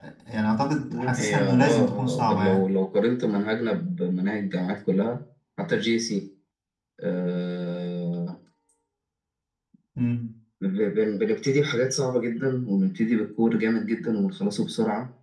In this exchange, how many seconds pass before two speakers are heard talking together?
0.9 s

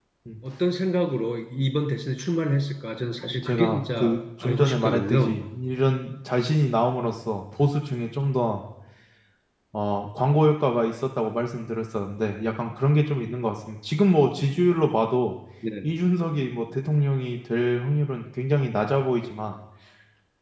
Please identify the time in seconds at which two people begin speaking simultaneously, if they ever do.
3.3 s

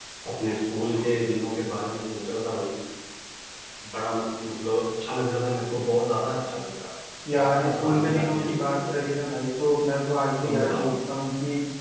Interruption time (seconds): 7.3 s

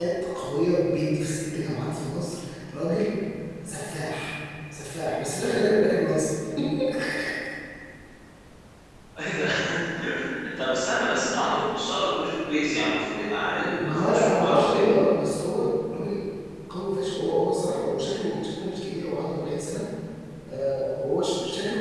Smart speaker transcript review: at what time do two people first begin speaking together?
13.8 s

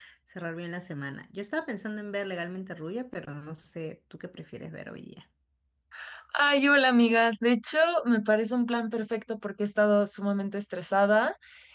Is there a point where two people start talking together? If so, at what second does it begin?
none

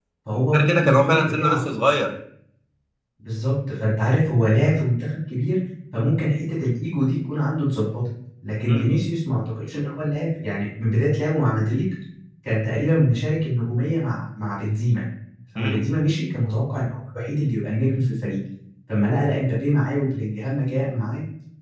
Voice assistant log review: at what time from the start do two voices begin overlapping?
0.5 s

